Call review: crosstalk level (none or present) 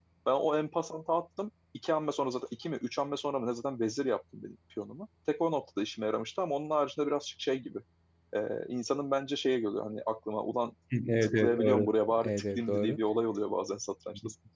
present